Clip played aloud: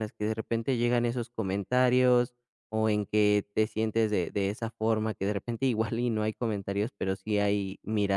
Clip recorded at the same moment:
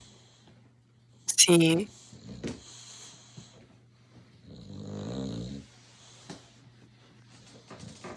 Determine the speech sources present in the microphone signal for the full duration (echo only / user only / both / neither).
user only